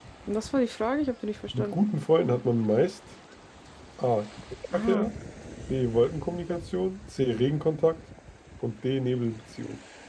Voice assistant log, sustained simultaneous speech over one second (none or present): none